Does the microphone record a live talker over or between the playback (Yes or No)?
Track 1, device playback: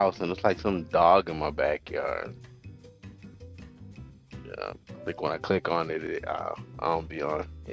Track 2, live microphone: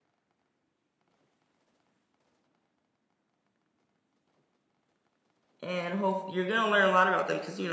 Yes